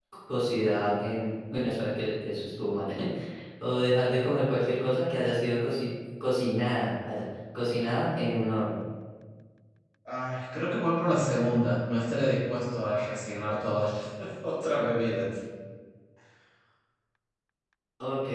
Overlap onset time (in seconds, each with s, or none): none